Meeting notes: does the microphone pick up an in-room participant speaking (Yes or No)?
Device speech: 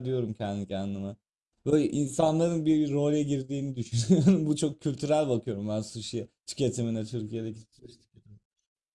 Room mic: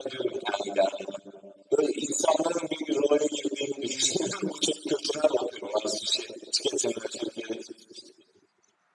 Yes